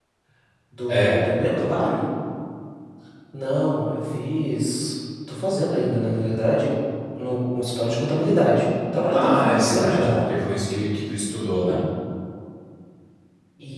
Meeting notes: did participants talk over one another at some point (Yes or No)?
Yes